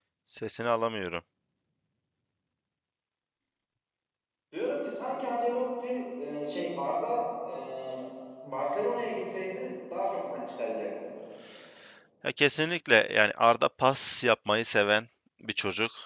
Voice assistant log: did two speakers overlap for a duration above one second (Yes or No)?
No